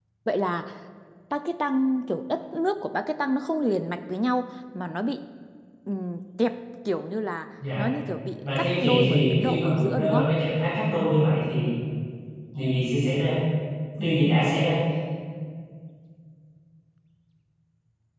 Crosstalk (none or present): present